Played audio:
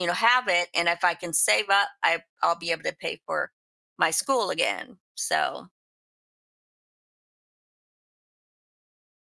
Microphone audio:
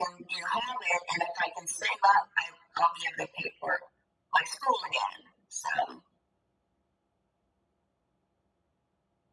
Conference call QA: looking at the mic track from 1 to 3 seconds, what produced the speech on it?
echo only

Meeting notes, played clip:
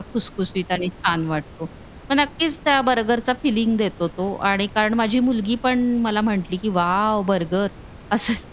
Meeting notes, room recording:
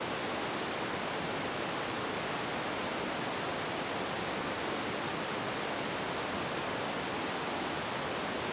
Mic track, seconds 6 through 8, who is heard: neither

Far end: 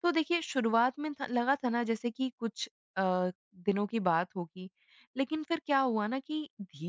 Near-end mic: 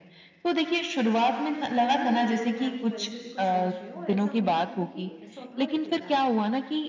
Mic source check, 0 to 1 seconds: echo only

